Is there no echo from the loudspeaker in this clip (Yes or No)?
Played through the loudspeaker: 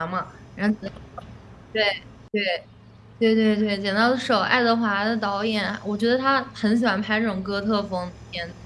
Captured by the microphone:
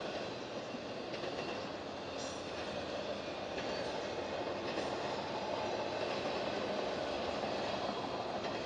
Yes